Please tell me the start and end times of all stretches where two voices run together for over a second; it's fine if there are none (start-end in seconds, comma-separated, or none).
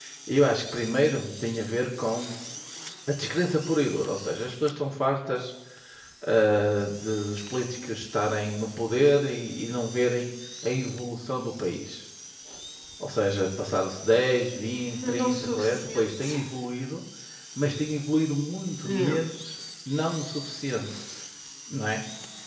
15.1-16.4